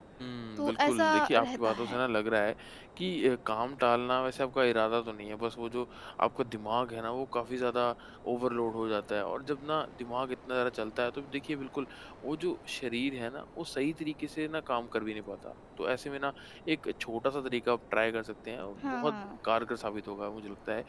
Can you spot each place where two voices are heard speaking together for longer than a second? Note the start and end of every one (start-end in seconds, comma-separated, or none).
0.6-2.0